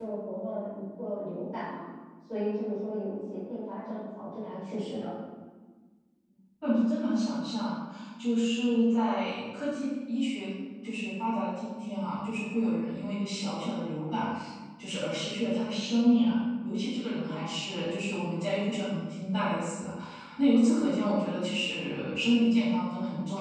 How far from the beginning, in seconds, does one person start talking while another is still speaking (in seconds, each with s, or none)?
none